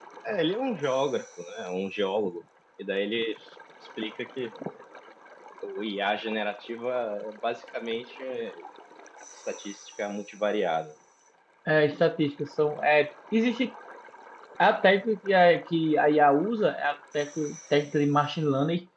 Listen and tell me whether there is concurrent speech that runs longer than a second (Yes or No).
No